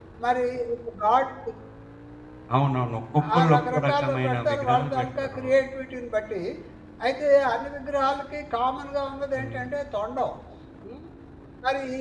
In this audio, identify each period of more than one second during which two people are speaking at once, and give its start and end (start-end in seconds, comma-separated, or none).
3.4-5.5